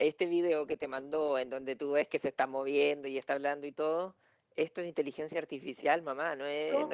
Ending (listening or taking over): taking over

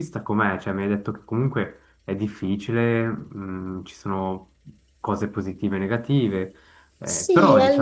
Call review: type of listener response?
taking over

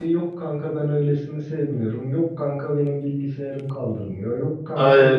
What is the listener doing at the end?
taking over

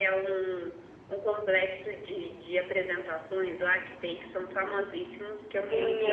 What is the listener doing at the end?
taking over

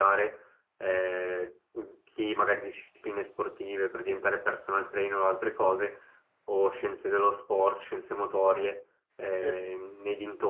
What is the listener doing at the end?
listening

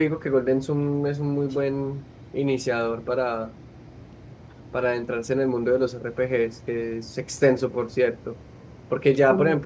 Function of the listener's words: listening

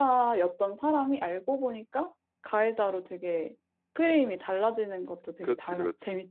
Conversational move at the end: taking over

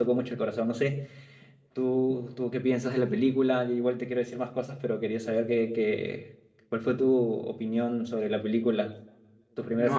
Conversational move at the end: taking over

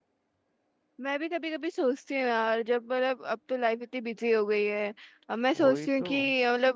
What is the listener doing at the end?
listening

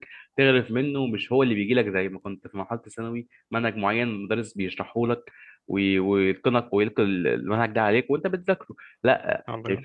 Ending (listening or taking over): listening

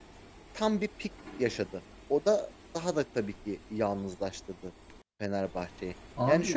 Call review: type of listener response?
listening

